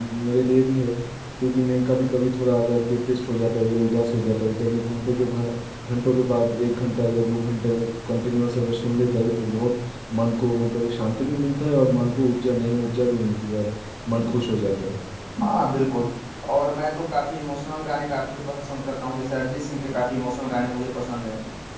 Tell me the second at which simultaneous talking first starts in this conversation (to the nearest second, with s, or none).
none